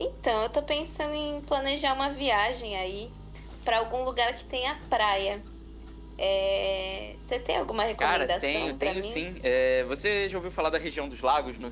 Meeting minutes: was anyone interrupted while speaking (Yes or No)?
Yes